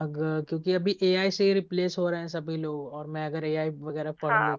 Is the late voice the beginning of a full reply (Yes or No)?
Yes